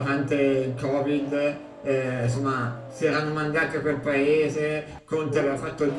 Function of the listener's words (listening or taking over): listening